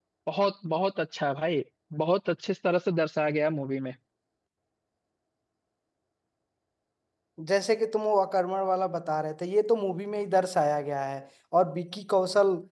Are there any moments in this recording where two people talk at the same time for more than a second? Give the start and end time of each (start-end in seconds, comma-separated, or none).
none